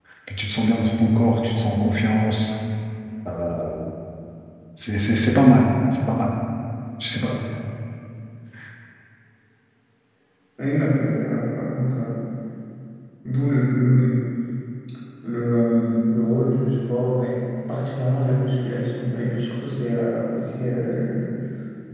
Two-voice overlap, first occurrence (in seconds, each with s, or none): none